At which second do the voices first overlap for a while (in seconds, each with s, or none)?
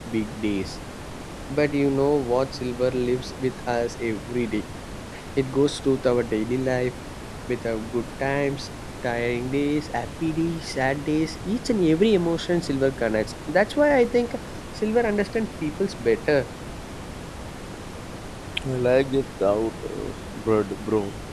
none